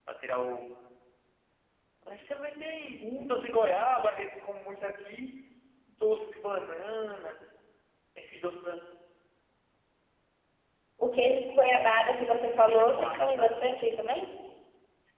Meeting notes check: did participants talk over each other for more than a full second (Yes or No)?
Yes